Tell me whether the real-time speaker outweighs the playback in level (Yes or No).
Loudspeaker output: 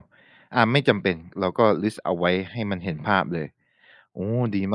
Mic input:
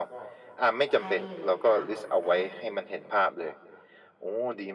No